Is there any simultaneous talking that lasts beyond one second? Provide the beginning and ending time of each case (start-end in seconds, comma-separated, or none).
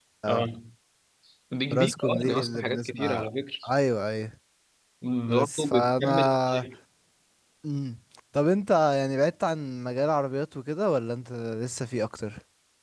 1.7-3.3, 5.3-6.7